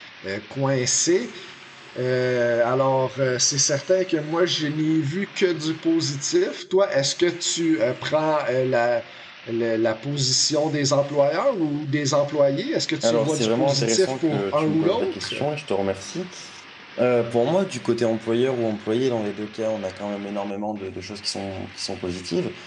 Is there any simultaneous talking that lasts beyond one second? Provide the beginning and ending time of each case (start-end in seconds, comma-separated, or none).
13.0-15.3